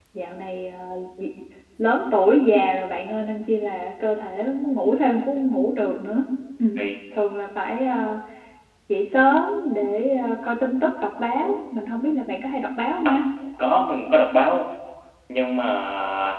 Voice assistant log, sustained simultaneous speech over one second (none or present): none